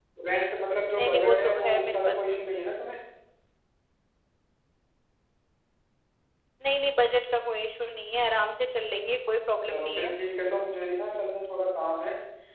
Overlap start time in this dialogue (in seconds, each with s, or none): 1.0 s